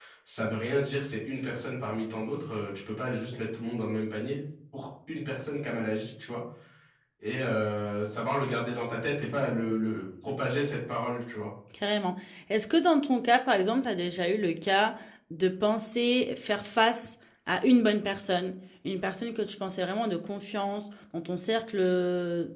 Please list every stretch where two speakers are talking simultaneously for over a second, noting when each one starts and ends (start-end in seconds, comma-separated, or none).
none